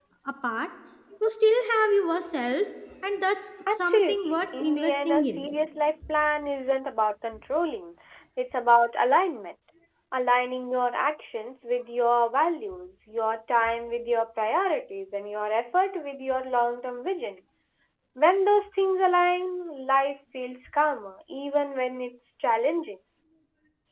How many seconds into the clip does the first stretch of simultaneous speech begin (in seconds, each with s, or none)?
3.7 s